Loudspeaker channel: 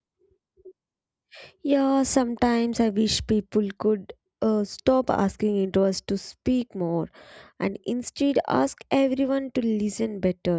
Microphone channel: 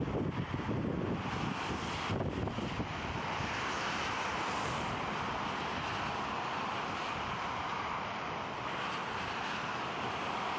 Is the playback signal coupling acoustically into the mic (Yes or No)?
No